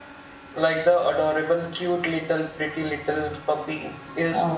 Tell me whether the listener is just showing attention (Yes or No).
No